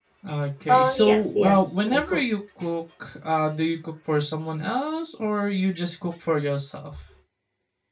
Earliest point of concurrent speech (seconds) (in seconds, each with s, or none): 0.7 s